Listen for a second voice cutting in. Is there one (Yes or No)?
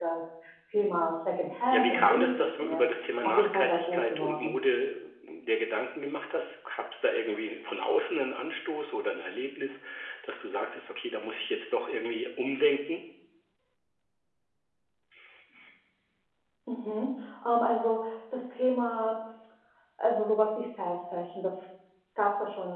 Yes